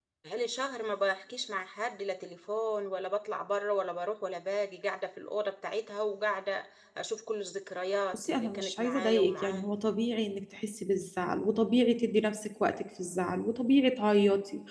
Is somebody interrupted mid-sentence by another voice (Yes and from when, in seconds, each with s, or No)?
Yes, from 8.1 s